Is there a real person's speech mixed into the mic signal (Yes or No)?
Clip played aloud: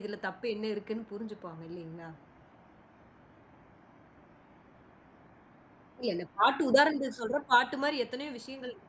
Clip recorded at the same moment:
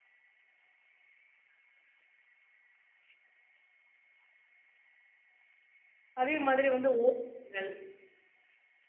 Yes